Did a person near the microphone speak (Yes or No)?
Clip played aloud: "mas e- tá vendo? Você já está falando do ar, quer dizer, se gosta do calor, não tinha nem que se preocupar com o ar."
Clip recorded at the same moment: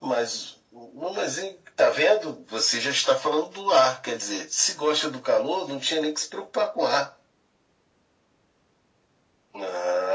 No